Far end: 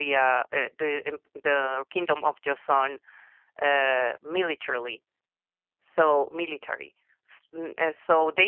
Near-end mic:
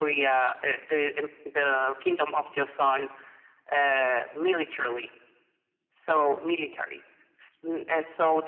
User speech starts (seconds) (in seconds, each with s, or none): none